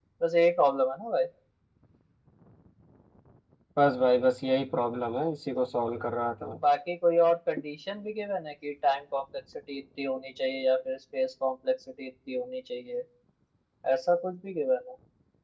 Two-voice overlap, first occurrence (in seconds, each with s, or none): none